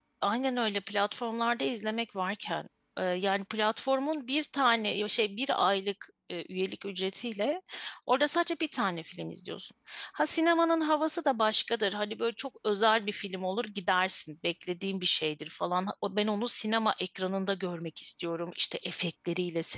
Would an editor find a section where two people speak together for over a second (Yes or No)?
No